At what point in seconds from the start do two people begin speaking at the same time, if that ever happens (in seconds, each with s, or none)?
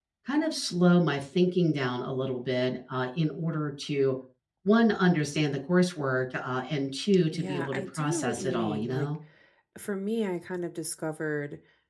7.3 s